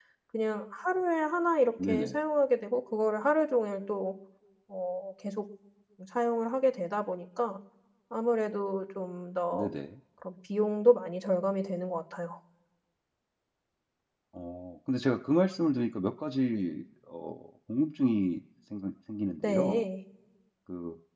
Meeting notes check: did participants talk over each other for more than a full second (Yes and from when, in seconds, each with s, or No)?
No